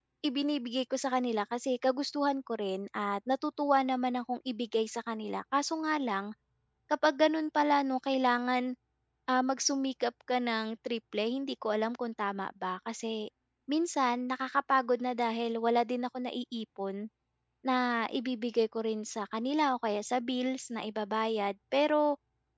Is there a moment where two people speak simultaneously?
No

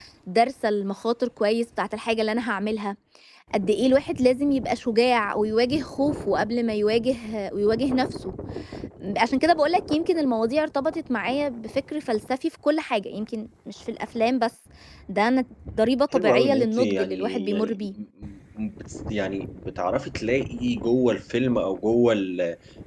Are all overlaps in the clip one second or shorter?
No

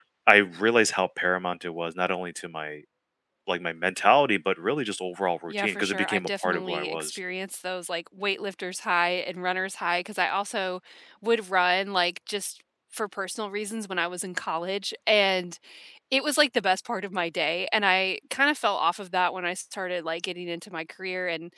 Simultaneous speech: Yes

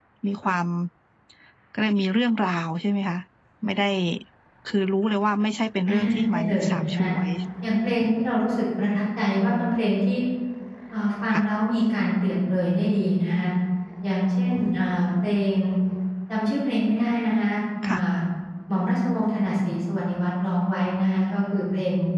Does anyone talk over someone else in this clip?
Yes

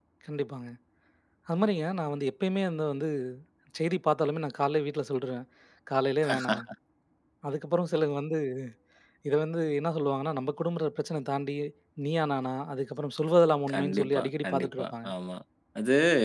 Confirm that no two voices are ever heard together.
No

